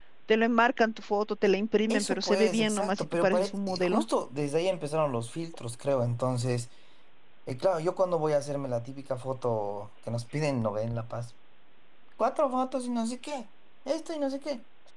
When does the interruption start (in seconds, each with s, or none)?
1.9 s